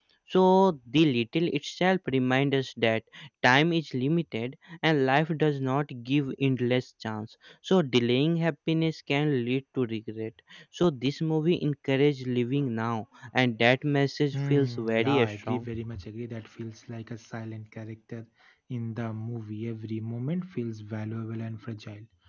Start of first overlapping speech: 14.3 s

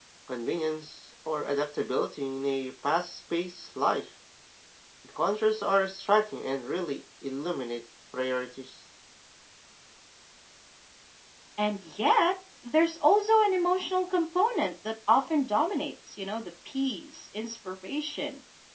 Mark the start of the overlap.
none

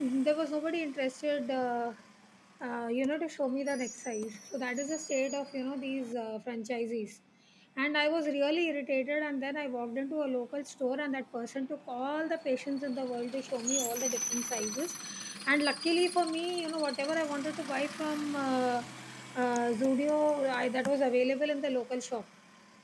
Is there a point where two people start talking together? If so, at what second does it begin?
none

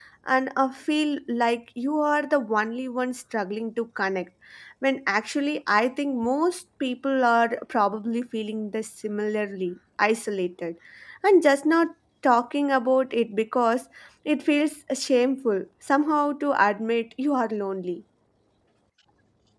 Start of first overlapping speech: none

